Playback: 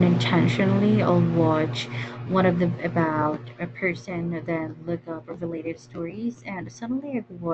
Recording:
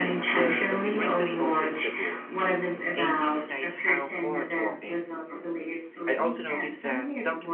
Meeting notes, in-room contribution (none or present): present